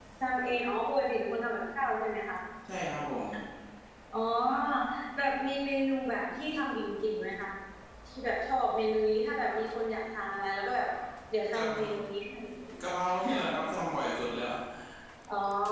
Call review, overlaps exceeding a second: none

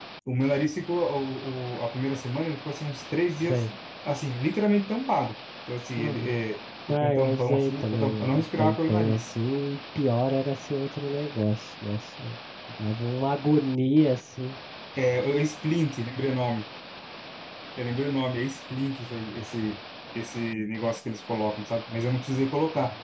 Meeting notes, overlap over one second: present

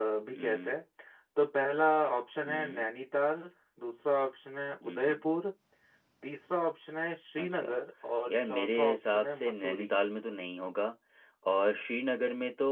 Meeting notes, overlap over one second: present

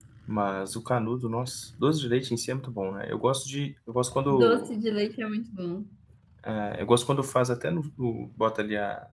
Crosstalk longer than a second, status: none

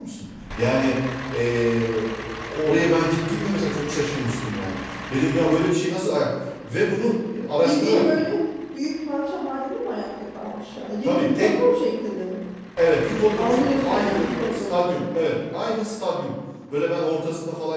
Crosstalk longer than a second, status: present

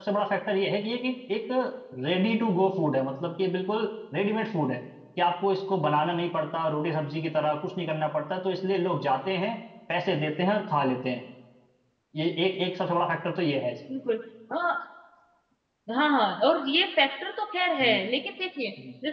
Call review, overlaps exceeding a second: none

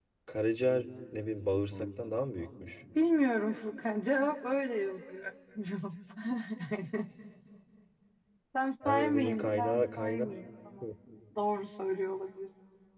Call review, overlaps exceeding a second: present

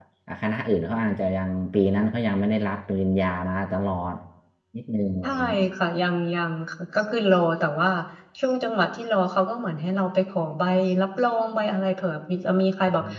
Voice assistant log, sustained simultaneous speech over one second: none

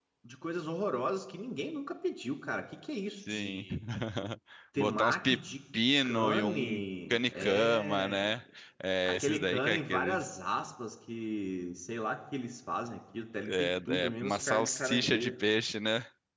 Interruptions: present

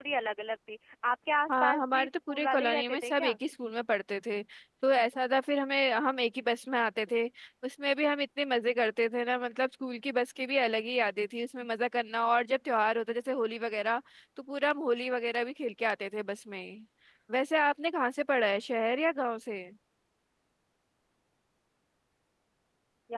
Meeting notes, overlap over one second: present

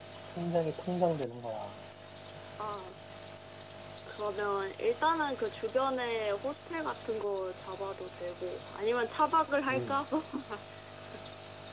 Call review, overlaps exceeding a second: none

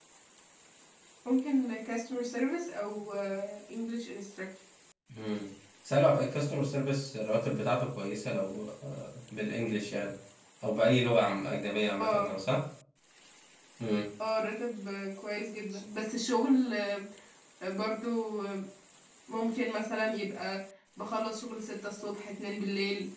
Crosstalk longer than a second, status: none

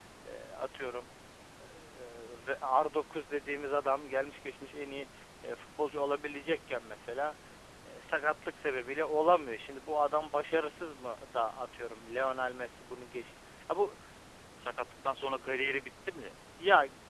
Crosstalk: none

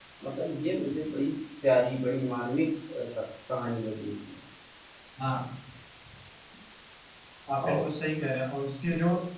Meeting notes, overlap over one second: none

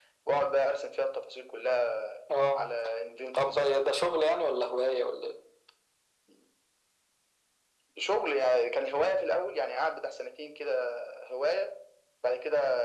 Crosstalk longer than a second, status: none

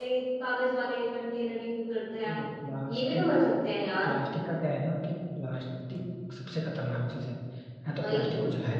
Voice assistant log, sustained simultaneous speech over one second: none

